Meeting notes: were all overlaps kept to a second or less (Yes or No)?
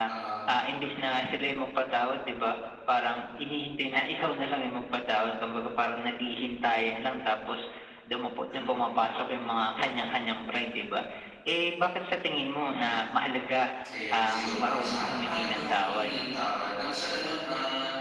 No